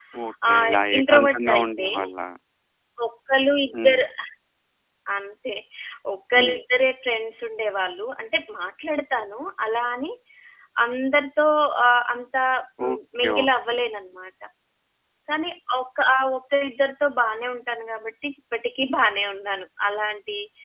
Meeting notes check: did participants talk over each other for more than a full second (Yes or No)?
Yes